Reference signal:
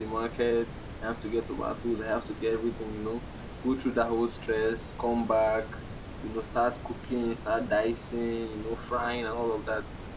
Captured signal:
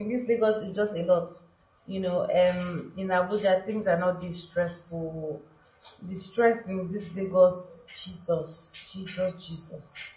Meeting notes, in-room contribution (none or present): present